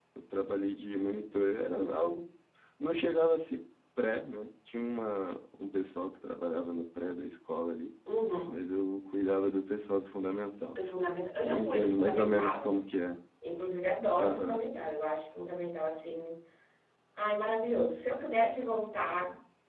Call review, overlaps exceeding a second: present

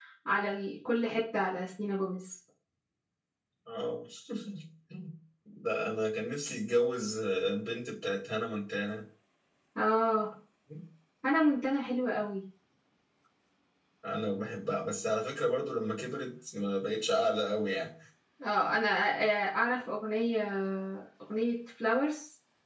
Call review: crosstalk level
none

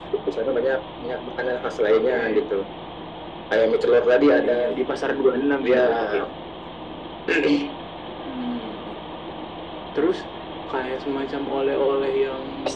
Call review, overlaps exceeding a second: none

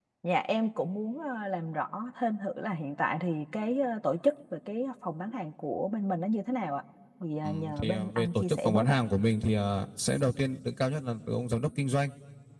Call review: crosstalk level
present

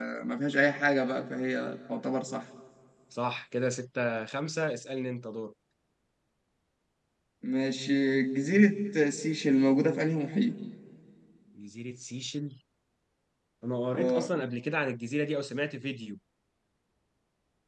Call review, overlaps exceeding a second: none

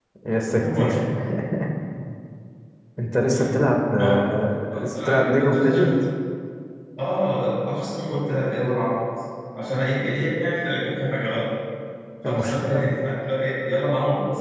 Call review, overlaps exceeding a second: present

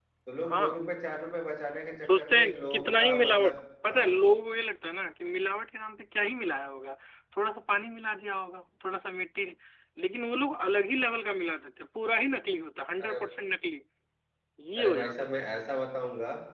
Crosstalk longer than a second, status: present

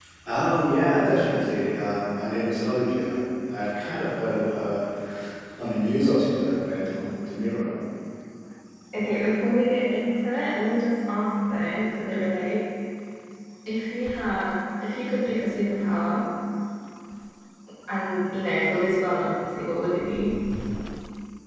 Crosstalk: none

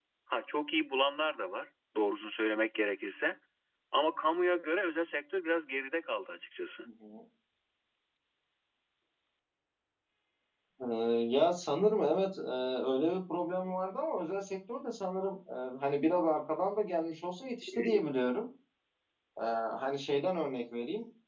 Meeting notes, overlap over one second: none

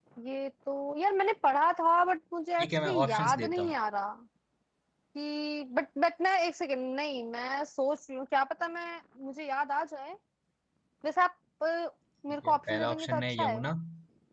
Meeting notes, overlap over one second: present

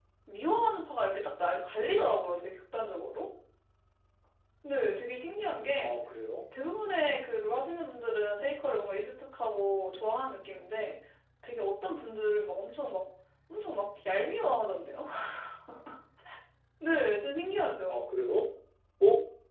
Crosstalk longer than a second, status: none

